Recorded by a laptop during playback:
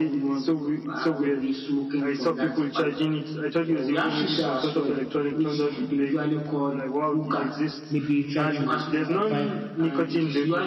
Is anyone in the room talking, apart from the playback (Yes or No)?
Yes